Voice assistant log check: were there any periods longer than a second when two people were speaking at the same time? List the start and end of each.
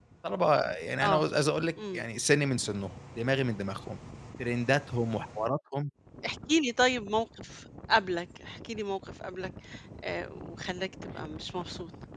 none

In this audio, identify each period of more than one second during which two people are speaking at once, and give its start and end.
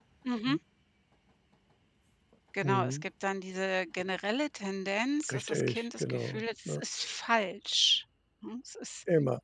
5.3-6.8

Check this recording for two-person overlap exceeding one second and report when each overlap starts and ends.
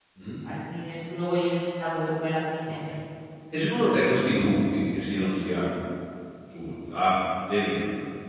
none

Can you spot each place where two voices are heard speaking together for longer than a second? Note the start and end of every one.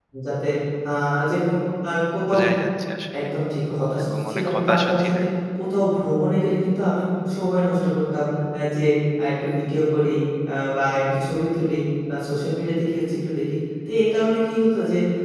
4.0-5.2

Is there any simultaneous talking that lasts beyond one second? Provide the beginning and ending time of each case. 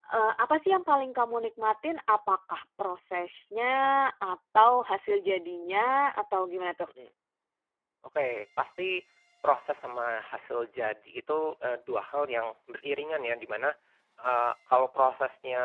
none

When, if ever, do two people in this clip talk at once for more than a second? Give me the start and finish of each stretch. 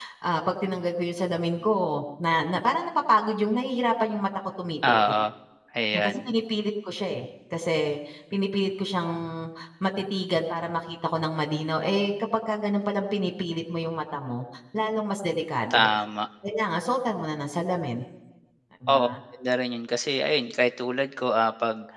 none

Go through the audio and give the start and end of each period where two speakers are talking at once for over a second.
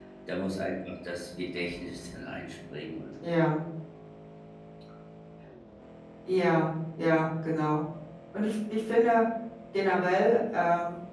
none

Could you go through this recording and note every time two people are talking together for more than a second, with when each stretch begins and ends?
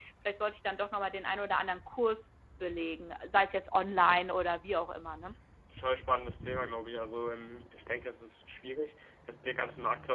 none

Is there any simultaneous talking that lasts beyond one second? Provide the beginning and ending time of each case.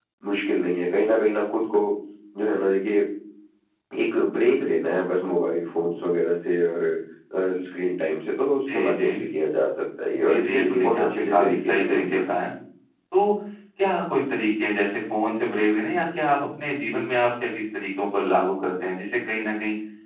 10.3-12.2

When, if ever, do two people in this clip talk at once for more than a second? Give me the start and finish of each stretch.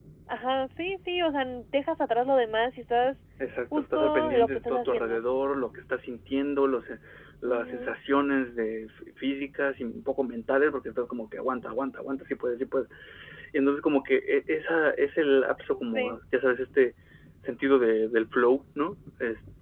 3.8-5.2

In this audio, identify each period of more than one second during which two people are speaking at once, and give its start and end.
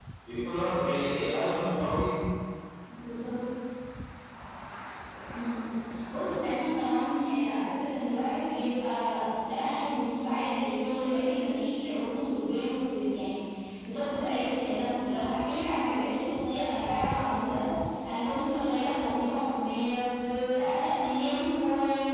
none

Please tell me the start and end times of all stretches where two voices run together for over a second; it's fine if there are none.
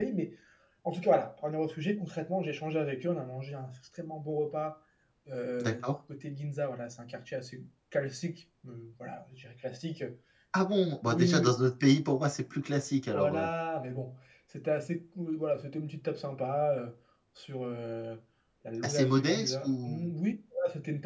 18.8-20.1

